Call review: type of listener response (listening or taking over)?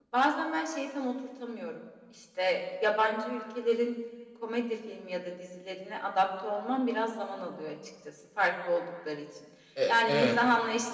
listening